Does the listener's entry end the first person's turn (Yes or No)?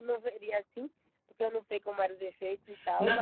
Yes